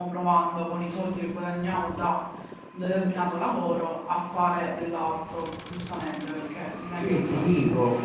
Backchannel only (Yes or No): No